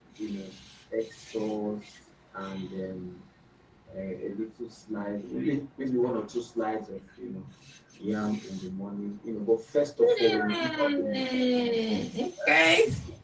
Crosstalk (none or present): present